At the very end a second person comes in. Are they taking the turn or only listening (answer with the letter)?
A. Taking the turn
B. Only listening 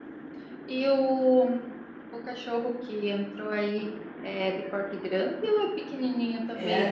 A